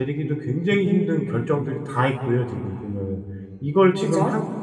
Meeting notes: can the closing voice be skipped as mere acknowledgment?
Yes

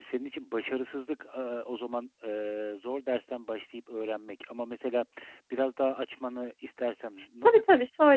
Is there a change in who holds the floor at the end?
Yes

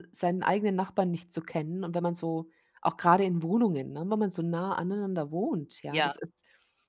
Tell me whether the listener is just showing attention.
Yes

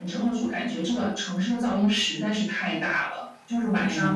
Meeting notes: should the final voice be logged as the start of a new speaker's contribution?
No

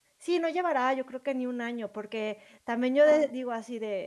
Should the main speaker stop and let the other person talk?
No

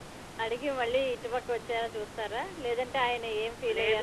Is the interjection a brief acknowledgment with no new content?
No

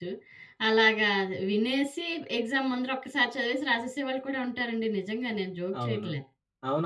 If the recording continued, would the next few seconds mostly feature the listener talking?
Yes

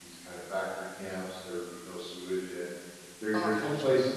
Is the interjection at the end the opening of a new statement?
No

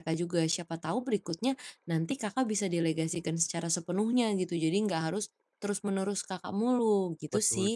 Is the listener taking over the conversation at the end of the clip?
Yes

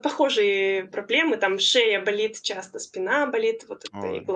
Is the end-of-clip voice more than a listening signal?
No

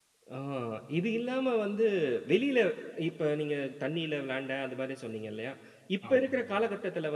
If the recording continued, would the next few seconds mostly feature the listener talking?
No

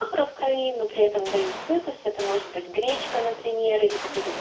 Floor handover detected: No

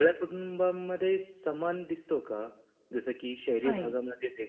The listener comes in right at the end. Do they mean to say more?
No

